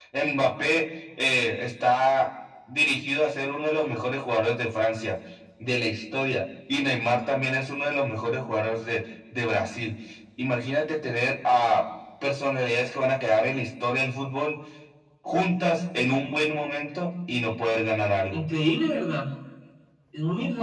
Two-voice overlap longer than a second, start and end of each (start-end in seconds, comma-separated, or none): none